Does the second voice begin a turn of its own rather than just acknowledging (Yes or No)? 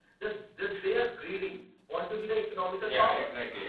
Yes